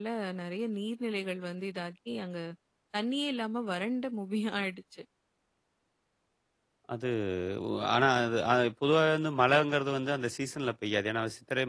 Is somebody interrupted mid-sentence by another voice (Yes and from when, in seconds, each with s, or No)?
No